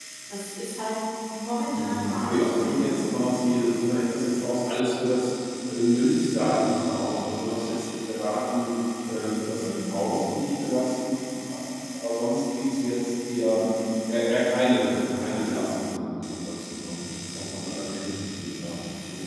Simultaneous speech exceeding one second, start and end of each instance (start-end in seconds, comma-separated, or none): 1.7-3.4